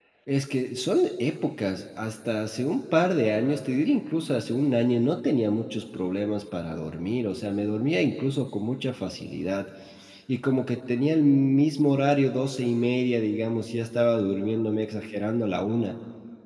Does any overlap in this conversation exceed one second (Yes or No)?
No